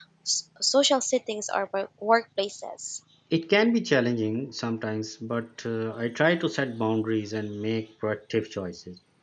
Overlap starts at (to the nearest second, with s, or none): none